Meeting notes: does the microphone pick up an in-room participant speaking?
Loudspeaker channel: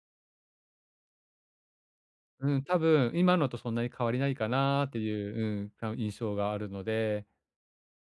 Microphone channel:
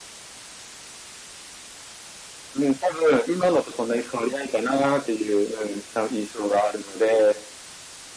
No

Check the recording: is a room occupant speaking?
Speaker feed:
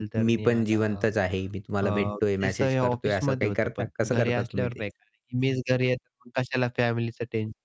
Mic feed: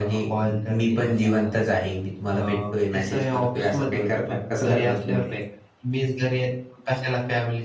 No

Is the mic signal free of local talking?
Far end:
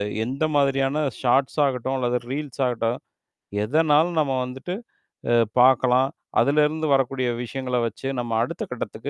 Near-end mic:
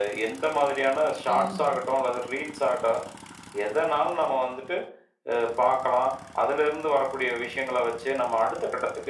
No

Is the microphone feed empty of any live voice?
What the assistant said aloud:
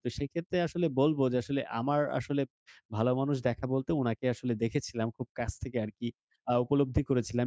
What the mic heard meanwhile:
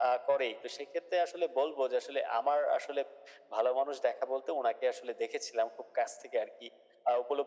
Yes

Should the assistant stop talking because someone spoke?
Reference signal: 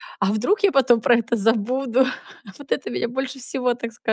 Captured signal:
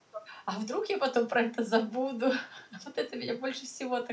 No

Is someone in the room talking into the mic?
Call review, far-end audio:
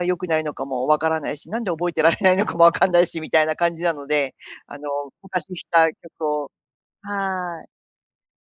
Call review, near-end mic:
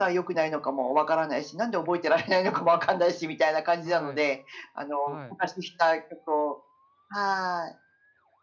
Yes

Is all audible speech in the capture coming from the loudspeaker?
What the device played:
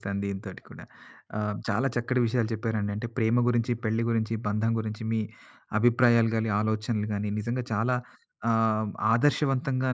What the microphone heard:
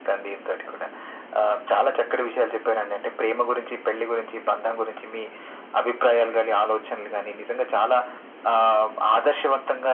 Yes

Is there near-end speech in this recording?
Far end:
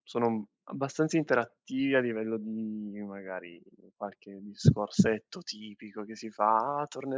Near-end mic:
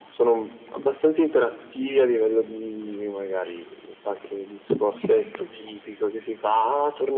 No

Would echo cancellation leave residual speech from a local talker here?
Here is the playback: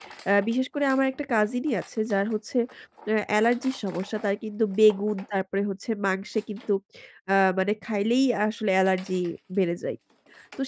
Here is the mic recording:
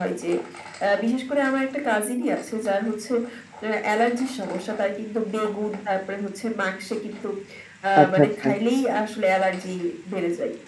Yes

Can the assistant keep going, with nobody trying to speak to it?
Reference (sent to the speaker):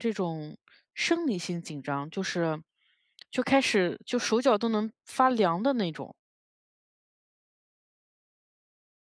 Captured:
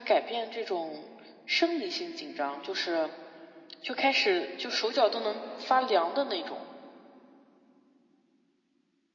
Yes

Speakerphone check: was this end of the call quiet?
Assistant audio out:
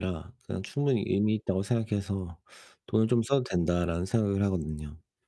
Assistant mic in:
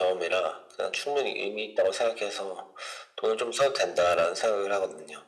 Yes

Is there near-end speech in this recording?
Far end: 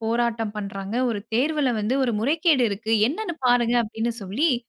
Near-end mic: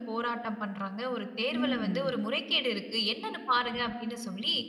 Yes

